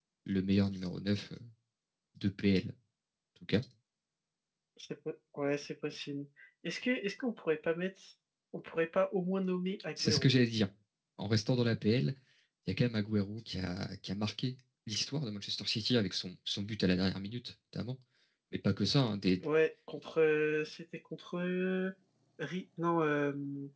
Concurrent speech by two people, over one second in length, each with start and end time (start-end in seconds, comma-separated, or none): none